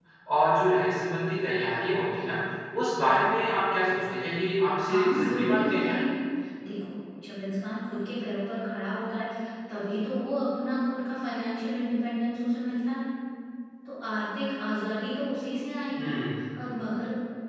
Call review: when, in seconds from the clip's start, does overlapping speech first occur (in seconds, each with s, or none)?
4.8 s